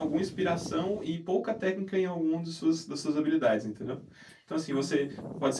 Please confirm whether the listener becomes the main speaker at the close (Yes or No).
No